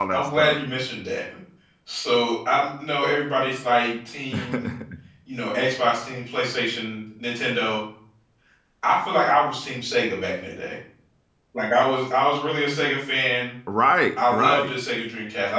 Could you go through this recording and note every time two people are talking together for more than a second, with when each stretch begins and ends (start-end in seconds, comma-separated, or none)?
none